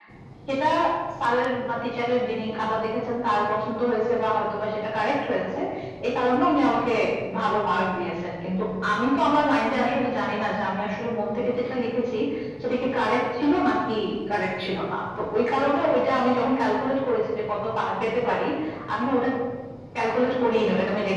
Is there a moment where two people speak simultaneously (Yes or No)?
No